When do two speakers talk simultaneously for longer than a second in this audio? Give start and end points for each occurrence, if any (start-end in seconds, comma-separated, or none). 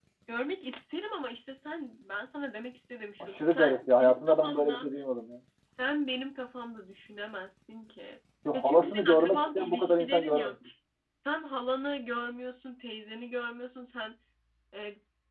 3.2-4.9, 8.5-10.6